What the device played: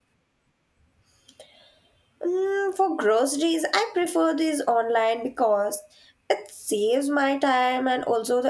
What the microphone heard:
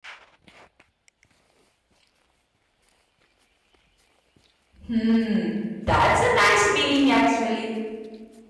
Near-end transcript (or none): Hmm, that's a nice feeling actually.